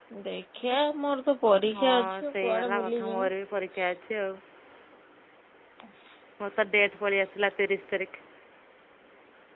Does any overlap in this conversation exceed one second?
Yes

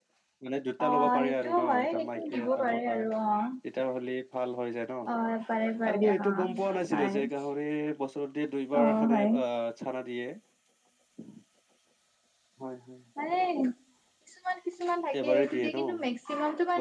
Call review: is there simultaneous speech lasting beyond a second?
Yes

